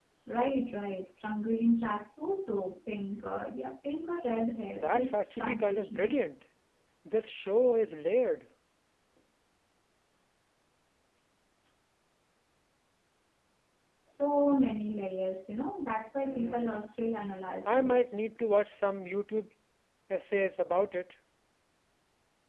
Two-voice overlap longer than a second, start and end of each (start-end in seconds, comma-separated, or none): 4.7-6.2